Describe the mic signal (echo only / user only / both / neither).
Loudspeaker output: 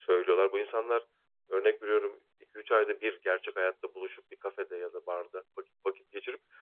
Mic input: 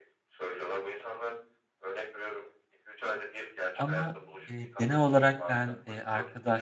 both